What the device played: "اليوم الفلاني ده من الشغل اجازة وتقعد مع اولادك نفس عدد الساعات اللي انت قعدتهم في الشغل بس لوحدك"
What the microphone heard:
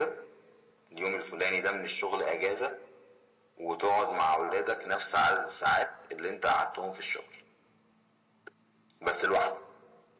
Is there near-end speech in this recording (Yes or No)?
No